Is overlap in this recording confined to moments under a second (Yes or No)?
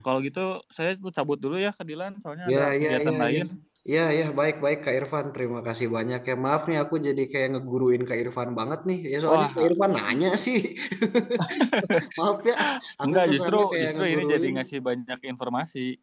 No